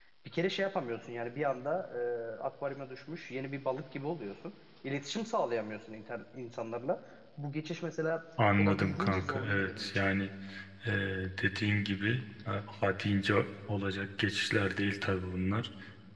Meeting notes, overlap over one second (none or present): present